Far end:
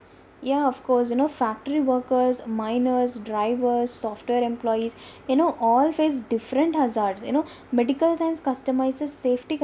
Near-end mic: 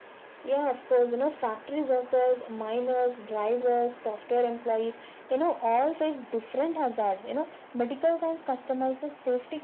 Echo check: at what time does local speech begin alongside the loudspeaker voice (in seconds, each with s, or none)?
none